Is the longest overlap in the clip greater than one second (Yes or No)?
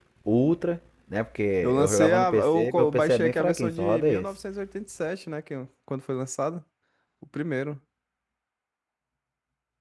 Yes